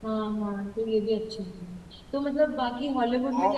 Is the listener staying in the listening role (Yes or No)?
Yes